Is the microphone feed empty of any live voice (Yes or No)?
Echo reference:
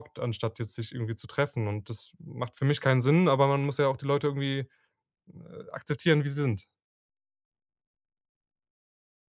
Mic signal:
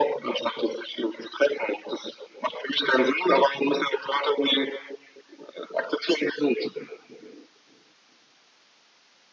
Yes